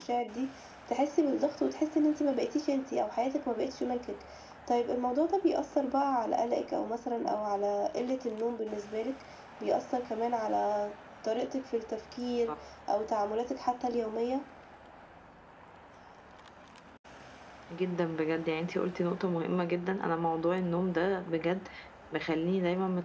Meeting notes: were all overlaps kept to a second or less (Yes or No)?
Yes